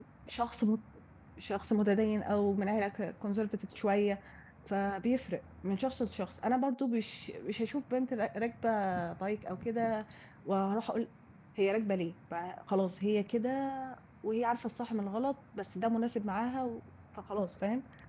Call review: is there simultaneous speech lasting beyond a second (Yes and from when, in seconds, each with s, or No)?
No